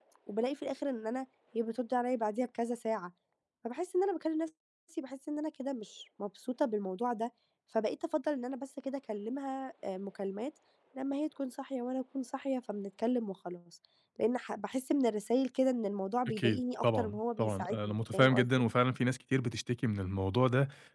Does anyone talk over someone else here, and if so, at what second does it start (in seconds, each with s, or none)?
16.3 s